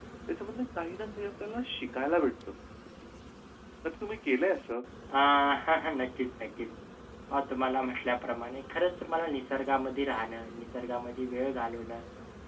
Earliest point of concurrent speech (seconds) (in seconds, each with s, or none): none